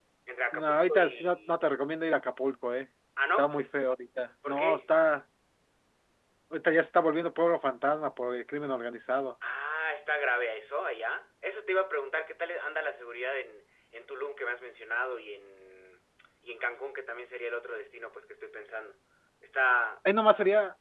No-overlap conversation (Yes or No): No